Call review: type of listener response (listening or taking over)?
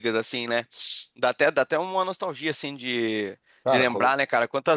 listening